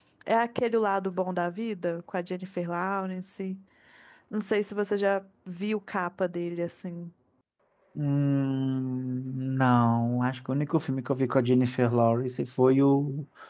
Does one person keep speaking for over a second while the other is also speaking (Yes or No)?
No